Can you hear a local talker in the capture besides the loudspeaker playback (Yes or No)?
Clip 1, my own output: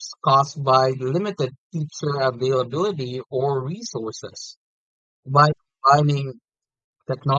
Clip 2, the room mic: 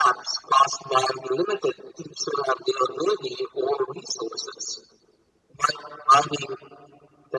No